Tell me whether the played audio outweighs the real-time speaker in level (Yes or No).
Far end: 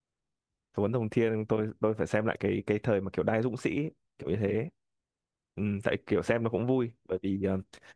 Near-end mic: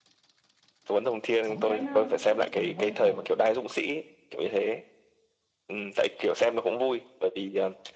Yes